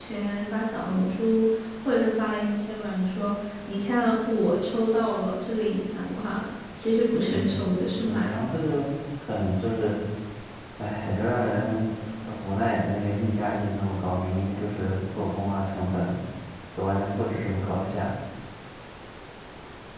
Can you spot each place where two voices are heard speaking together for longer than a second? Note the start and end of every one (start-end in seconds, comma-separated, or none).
7.3-8.6